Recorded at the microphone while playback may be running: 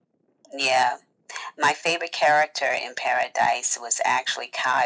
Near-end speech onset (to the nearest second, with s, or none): none